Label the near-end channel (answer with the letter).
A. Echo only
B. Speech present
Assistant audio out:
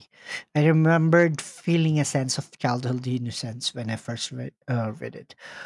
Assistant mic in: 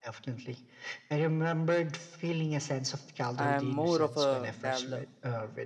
B